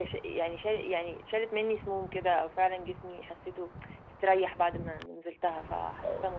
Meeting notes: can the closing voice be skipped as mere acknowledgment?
Yes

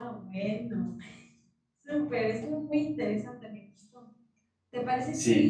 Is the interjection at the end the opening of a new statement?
No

